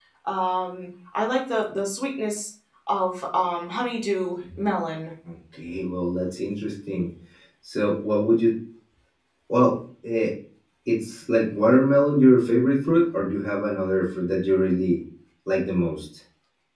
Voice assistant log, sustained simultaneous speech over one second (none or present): none